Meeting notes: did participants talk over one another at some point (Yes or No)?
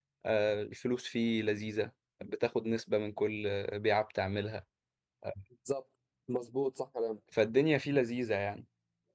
No